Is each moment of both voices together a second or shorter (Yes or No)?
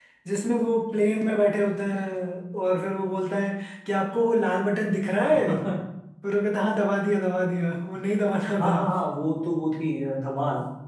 Yes